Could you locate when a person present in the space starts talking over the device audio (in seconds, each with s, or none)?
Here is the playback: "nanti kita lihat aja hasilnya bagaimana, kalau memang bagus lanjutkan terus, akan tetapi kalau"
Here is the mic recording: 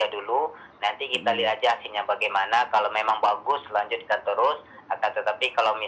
1.1 s